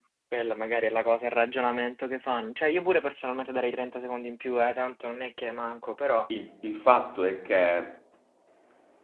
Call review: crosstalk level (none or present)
none